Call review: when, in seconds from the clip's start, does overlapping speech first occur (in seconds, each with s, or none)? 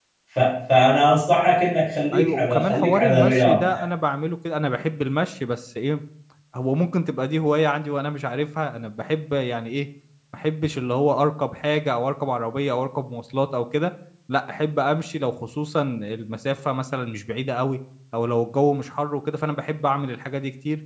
2.1 s